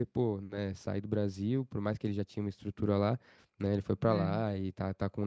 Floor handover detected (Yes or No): No